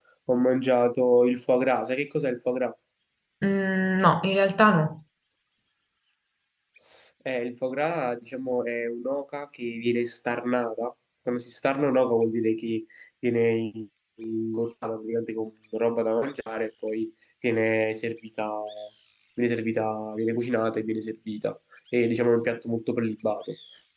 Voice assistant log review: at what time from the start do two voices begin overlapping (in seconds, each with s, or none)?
none